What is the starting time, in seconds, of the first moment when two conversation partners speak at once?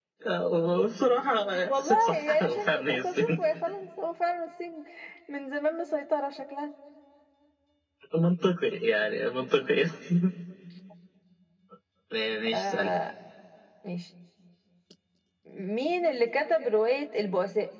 1.7 s

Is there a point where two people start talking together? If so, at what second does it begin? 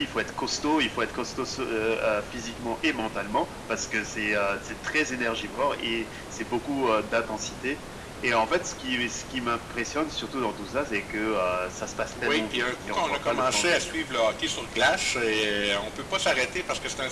12.1 s

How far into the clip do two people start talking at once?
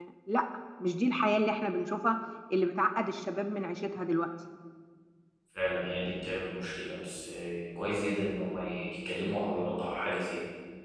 none

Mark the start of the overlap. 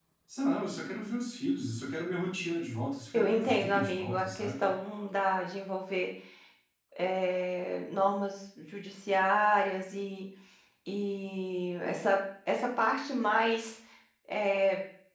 3.1 s

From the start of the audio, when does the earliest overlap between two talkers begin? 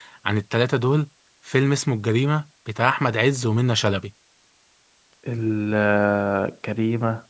none

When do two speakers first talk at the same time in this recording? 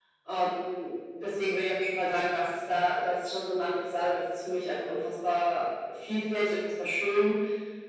none

